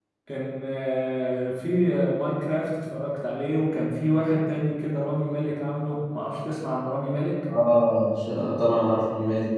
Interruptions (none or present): none